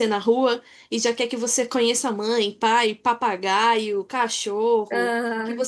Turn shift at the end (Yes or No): No